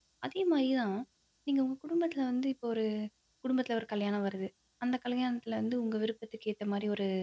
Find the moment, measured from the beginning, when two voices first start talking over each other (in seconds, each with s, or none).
none